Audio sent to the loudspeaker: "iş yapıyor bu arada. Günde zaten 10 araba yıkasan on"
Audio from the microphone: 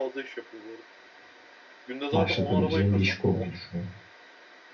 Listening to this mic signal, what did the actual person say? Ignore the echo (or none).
başlatabileceğim bir iş kurmayı düşünüyorum.